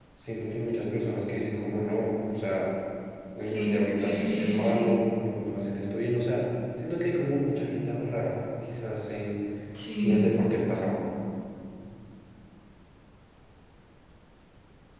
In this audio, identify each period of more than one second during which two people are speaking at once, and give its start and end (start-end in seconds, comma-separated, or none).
3.5-5.0